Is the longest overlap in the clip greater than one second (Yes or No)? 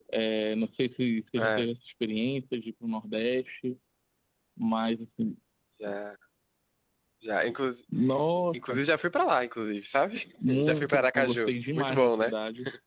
Yes